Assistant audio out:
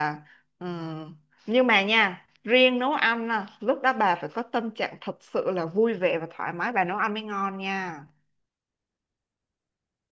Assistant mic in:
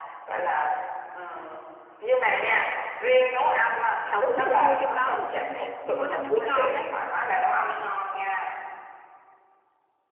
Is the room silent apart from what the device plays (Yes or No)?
No